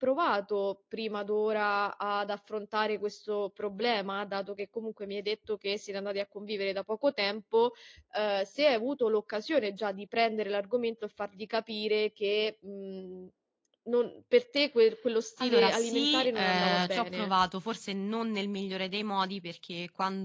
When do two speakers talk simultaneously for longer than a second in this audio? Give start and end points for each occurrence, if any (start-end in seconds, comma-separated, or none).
15.4-17.3